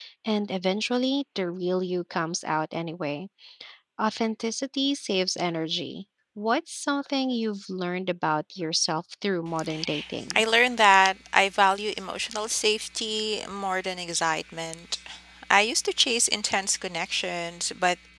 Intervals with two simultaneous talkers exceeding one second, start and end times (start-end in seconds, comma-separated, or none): none